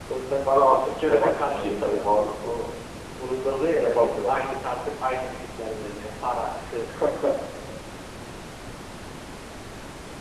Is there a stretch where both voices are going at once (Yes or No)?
Yes